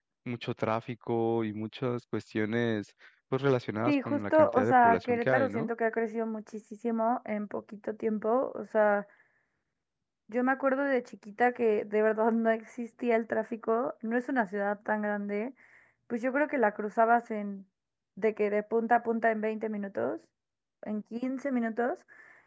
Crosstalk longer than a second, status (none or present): present